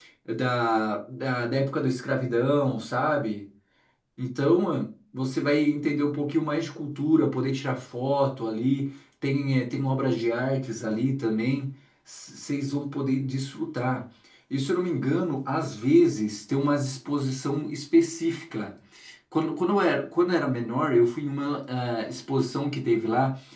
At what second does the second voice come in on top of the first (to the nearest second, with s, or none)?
none